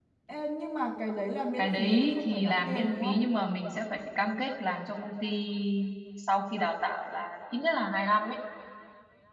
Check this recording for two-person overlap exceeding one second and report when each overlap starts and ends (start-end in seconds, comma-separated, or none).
1.6-3.2